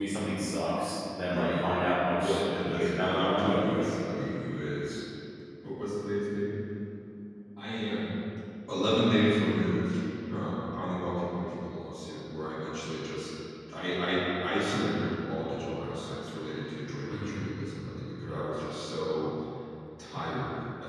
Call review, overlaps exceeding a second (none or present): present